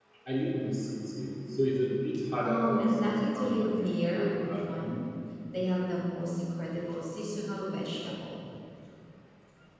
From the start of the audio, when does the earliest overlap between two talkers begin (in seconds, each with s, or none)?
2.4 s